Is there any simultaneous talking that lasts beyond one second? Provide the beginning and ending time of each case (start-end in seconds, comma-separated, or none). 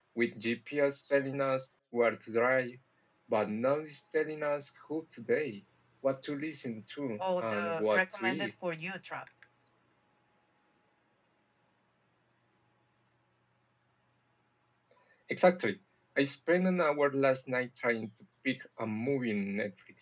7.2-8.5